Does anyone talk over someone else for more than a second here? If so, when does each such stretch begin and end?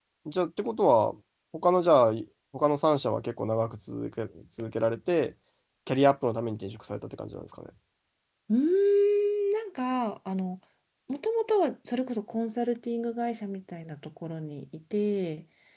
none

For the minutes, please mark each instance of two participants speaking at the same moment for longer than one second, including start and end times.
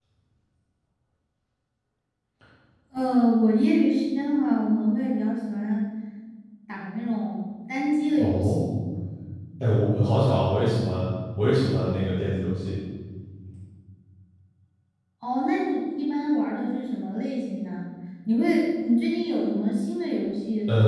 none

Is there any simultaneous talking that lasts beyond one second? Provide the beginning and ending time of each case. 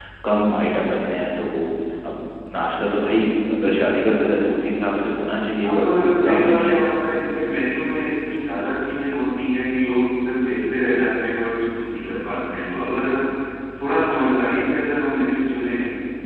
5.6-6.9

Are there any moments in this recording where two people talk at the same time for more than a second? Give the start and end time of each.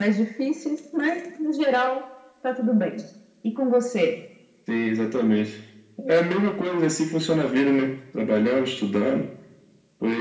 none

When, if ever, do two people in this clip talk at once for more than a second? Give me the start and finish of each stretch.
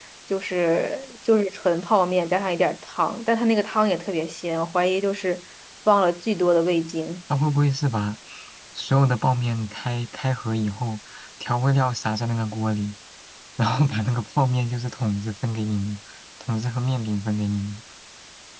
none

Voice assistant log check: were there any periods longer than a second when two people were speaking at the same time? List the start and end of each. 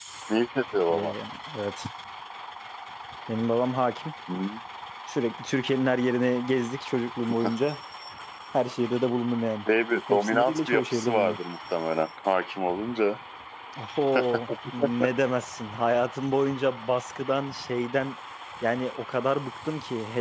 10.1-11.4

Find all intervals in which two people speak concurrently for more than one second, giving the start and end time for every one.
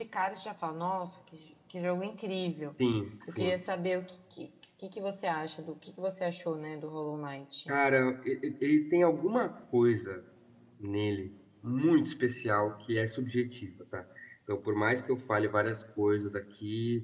none

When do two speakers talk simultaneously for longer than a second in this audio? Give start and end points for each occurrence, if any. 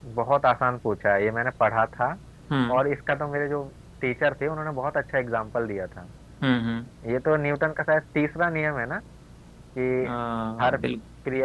none

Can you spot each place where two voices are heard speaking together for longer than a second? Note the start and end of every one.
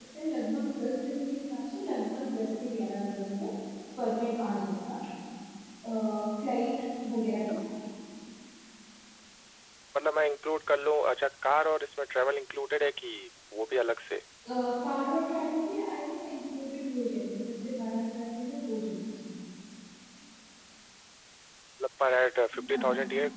none

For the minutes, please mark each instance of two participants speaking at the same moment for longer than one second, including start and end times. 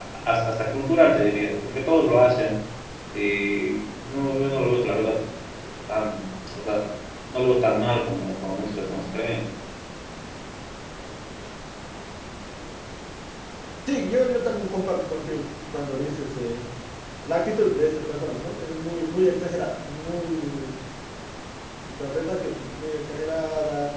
none

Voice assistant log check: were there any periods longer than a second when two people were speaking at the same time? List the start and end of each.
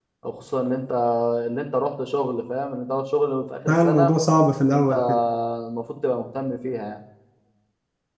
none

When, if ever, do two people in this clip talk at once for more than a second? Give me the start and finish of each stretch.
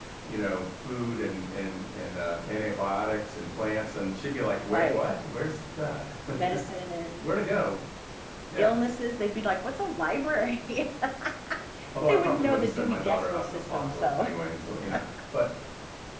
12.1-14.3

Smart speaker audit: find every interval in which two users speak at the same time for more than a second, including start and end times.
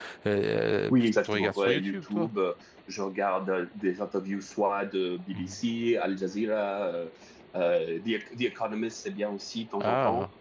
0.9-2.3

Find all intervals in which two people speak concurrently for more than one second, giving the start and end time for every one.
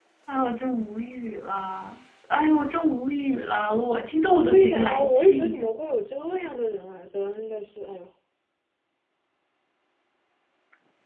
4.4-5.7

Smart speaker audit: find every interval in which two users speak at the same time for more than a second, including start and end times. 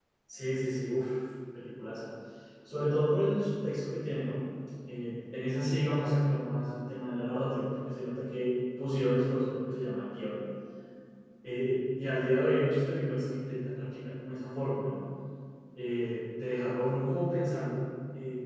none

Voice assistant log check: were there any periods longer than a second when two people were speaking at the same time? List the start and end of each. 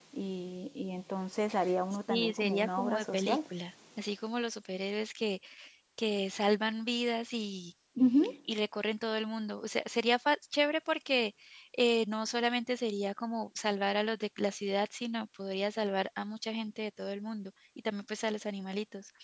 2.1-3.4

